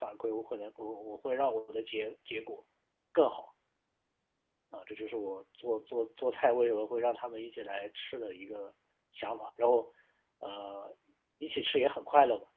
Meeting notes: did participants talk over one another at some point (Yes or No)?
No